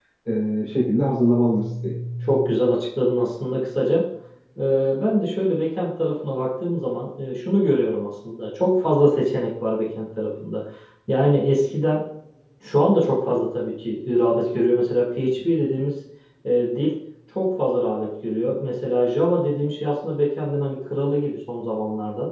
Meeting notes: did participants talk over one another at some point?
No

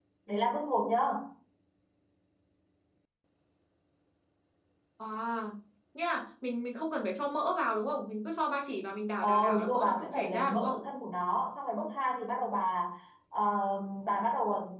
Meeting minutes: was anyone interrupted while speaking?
Yes, from 9.2 s

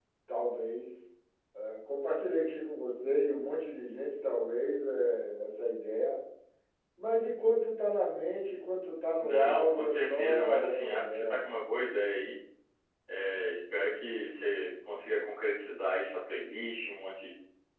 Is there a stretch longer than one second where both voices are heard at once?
Yes, from 9.2 s

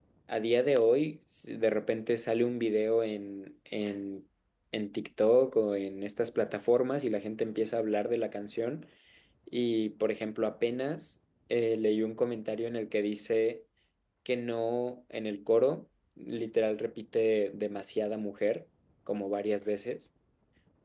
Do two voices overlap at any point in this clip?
No

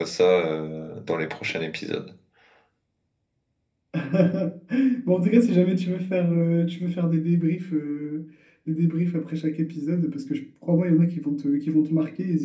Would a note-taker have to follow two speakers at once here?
No

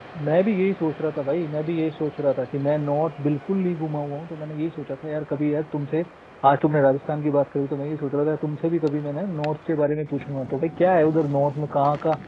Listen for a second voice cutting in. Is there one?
No

